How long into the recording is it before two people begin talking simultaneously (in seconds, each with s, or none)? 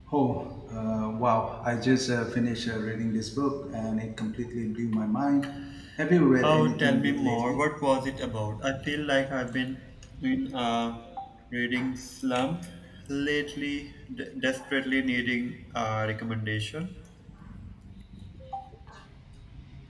6.4 s